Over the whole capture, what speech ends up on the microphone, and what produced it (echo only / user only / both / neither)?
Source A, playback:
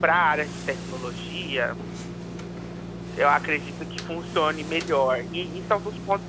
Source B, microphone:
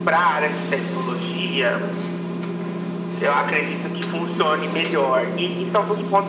echo only